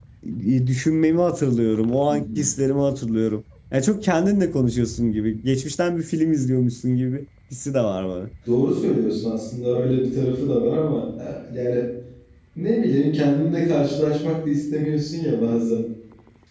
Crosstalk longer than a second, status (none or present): none